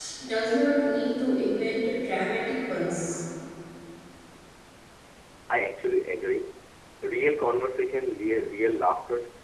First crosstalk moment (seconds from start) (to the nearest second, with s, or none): none